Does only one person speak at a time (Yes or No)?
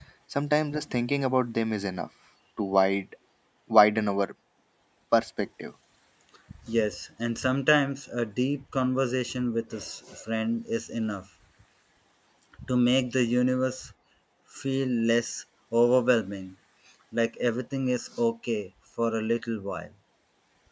Yes